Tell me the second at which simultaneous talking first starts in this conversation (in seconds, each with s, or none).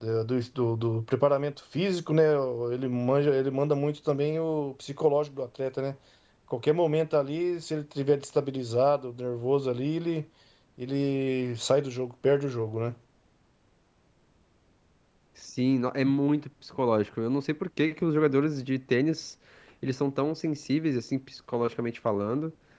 none